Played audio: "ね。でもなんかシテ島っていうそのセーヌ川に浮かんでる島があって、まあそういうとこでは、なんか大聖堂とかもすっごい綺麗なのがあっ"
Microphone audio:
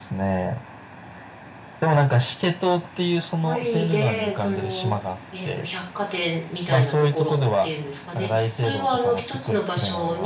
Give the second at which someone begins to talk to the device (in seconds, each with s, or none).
3.4 s